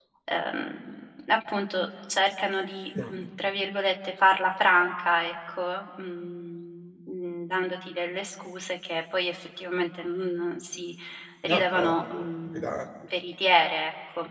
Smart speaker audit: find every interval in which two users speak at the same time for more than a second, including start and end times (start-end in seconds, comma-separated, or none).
11.4-12.8